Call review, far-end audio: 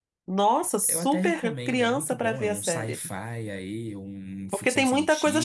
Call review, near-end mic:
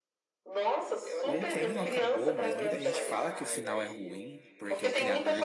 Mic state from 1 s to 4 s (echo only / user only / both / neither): both